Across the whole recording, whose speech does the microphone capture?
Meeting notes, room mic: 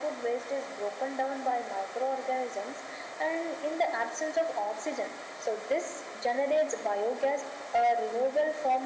echo only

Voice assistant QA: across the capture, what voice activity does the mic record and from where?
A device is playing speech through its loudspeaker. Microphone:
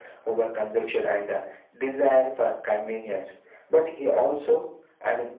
echo only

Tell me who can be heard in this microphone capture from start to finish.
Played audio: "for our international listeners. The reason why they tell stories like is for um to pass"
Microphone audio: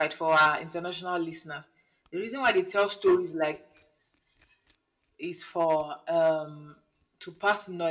echo only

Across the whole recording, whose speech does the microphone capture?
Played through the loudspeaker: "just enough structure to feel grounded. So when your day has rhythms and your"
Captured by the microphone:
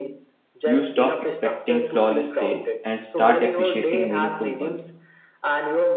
both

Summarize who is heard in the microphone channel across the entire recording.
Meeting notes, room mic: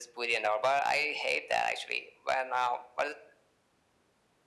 echo only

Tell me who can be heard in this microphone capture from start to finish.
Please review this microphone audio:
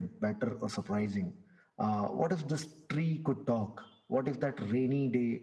echo only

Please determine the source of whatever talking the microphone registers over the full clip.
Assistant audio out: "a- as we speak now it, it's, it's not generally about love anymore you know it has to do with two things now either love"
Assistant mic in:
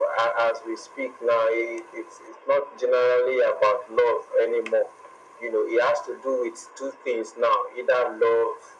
echo only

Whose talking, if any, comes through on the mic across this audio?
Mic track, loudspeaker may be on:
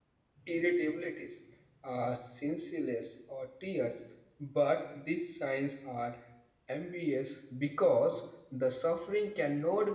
user only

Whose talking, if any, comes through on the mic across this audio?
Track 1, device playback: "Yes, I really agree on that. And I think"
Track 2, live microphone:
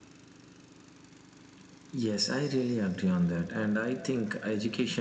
echo only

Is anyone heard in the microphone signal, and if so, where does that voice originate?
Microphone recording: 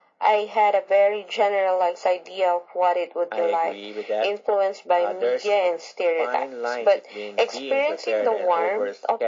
echo only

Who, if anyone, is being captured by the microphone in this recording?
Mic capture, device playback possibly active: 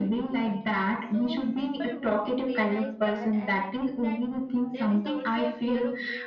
both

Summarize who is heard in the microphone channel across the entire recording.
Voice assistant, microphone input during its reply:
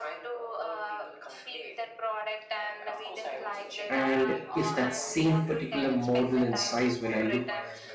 both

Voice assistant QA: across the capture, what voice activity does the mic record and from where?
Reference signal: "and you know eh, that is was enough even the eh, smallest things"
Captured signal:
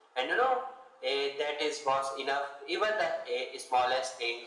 echo only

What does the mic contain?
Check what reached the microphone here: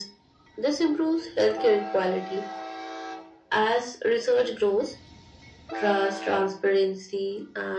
echo only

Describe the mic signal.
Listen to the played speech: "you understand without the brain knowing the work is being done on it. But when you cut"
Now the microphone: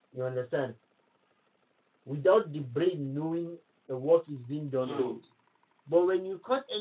both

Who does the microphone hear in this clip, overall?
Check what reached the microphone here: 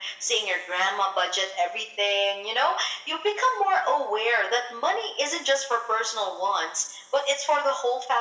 echo only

